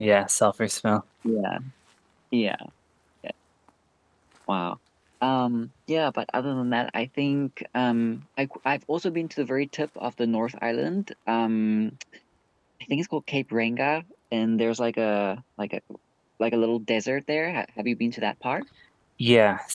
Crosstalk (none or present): none